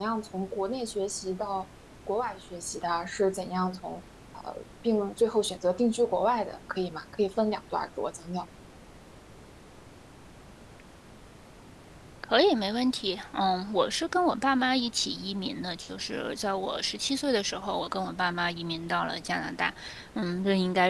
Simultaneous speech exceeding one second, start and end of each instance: none

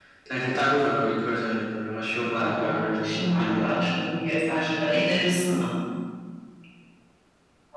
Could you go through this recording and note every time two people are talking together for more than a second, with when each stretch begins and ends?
2.3-3.7

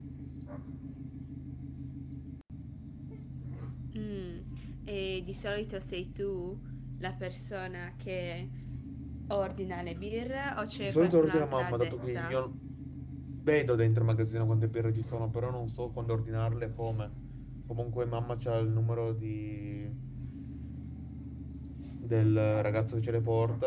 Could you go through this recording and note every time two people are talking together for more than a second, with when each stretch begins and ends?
10.8-12.4

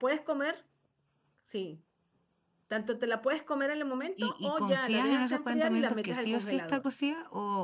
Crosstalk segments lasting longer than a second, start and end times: 4.2-6.8

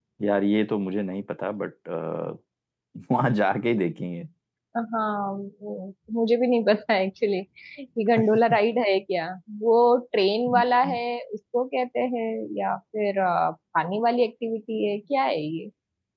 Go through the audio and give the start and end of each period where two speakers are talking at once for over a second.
none

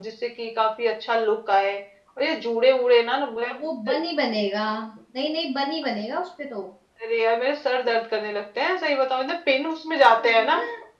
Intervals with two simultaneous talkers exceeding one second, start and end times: none

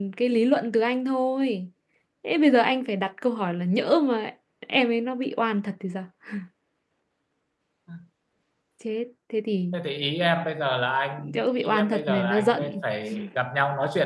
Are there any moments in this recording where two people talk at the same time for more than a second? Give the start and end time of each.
11.2-12.8

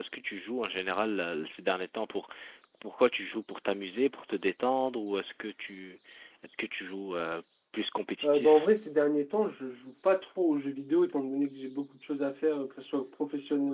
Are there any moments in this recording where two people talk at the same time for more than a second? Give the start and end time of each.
none

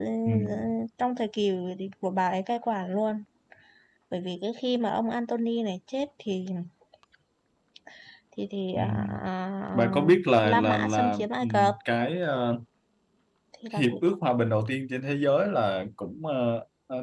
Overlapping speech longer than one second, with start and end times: 9.7-11.7

